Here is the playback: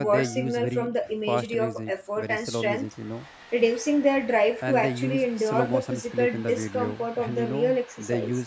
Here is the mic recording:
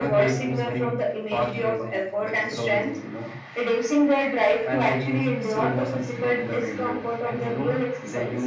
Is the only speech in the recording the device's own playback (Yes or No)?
Yes